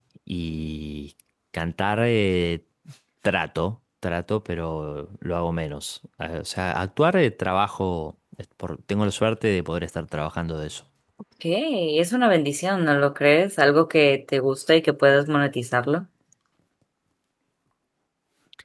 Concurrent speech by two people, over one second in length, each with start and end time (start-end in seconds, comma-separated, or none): none